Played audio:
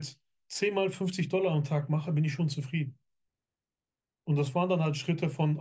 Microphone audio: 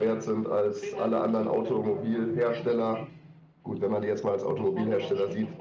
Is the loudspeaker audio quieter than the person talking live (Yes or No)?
Yes